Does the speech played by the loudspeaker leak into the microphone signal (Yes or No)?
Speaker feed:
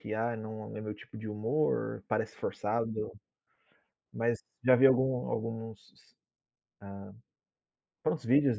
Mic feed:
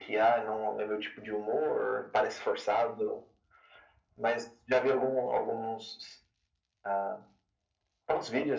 Yes